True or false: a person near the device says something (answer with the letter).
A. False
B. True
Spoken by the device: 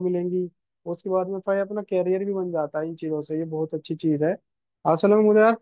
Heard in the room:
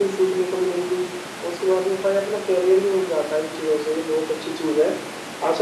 A